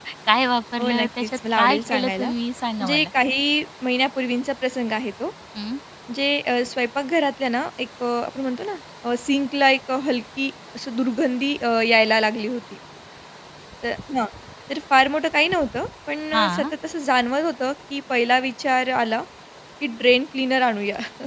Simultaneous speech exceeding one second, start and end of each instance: 0.8-2.3

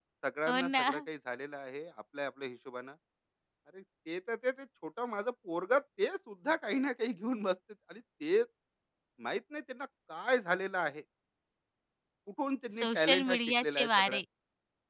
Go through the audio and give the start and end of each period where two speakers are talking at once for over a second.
12.7-14.2

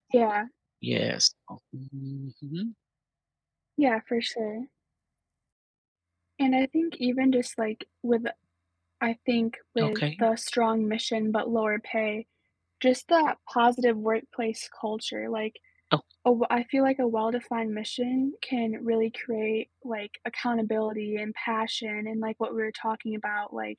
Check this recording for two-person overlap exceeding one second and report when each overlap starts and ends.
none

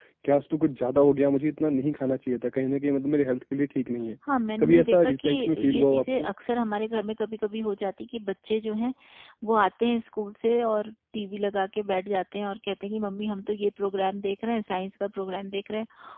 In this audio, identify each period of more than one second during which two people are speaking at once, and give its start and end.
4.6-6.3

